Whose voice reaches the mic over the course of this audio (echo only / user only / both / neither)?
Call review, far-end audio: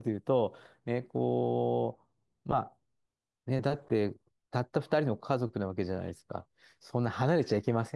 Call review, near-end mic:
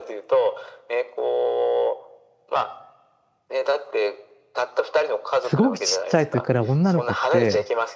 both